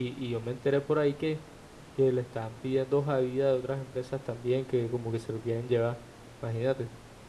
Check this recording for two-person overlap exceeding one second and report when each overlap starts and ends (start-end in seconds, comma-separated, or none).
none